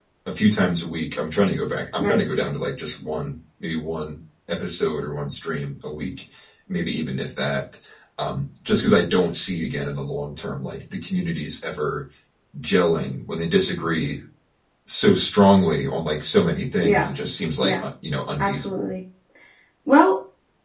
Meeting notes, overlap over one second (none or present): none